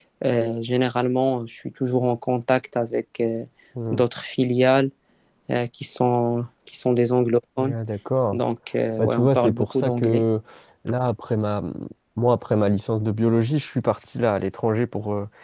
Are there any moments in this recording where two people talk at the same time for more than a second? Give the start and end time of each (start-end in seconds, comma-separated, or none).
9.0-10.2